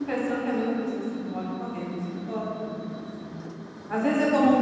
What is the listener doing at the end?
listening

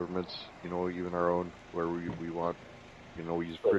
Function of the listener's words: taking over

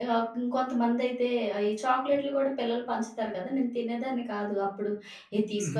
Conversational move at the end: listening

